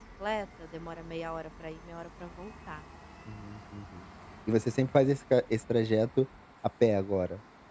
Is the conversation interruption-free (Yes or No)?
Yes